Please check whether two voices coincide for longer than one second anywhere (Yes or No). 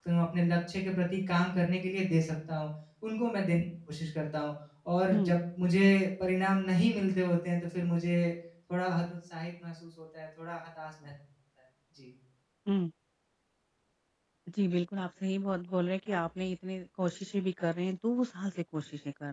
No